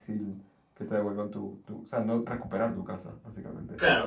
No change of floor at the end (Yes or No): No